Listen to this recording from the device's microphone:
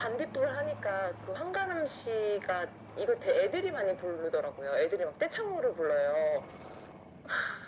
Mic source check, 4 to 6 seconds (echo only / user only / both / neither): echo only